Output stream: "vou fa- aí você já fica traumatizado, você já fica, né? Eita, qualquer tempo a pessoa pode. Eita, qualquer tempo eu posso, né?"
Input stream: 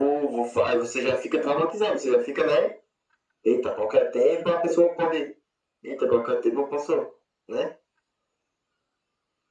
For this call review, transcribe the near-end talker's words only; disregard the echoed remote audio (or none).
none